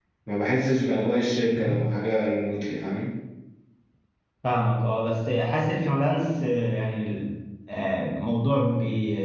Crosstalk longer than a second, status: none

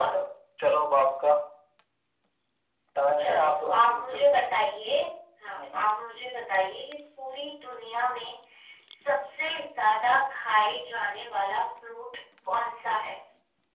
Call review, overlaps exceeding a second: present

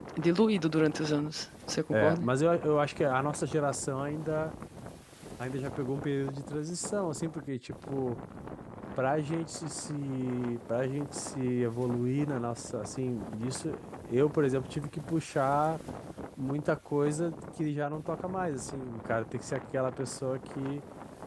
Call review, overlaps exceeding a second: none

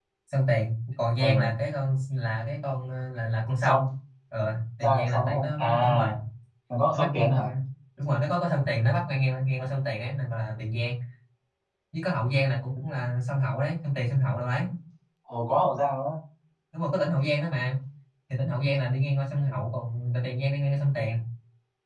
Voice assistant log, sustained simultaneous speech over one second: present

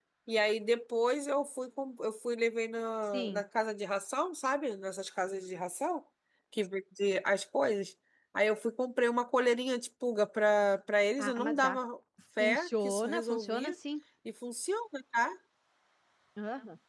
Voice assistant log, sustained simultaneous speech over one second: present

